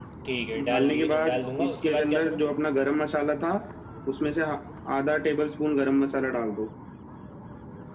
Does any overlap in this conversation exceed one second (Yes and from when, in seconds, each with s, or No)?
Yes, from 0.7 s